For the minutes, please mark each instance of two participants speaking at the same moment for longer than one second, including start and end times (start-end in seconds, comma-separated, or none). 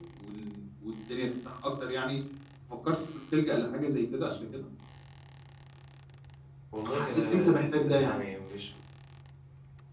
6.9-8.2